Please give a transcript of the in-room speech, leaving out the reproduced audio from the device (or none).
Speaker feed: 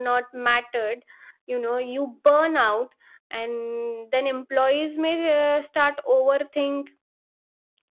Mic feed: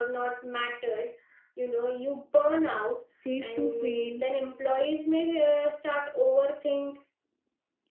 safe to fail